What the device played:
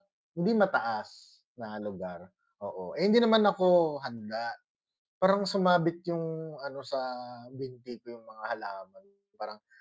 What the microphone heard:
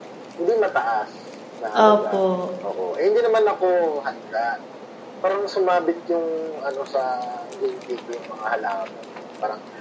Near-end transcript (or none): Opo.